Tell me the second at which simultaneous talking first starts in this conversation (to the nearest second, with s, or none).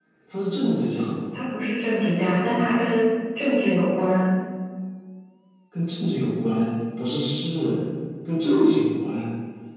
none